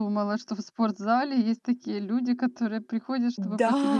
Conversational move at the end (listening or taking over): taking over